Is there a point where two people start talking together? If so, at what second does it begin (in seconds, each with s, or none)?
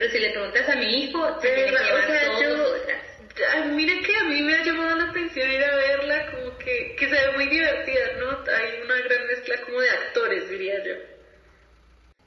1.4 s